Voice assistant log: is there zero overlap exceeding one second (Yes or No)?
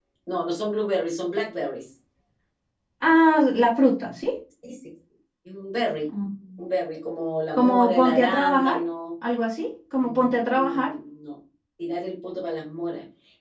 No